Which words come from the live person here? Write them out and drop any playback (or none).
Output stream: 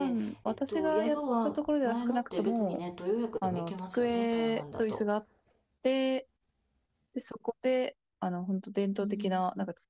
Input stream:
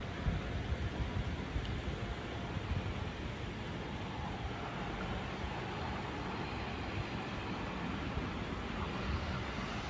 none